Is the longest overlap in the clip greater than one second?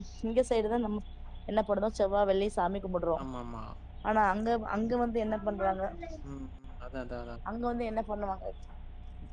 No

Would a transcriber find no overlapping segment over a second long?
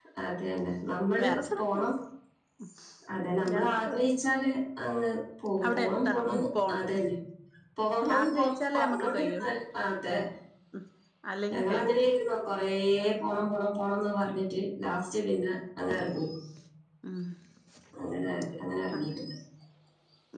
No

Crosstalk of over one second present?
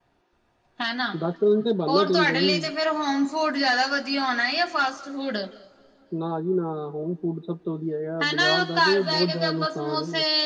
Yes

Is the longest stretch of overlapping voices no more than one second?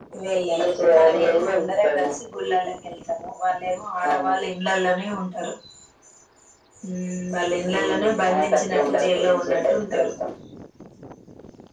No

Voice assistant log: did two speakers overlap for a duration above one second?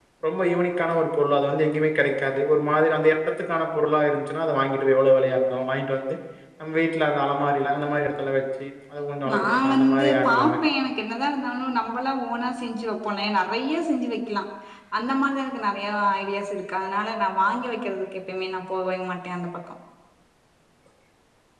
Yes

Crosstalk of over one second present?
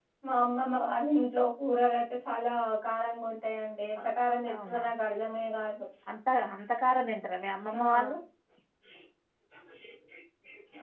No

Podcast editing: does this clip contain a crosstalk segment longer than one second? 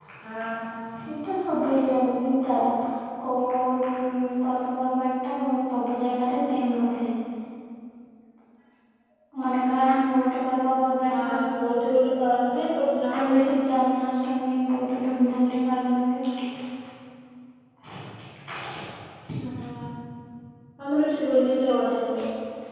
No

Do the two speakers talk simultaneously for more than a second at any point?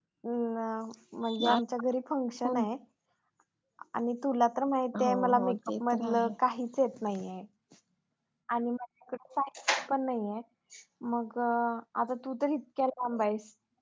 Yes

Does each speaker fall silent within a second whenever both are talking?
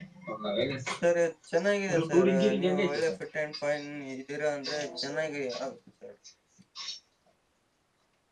No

